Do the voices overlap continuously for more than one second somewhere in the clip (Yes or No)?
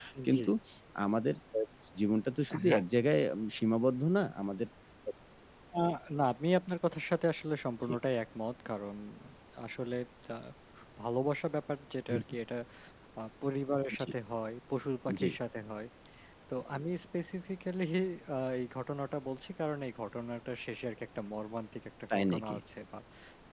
No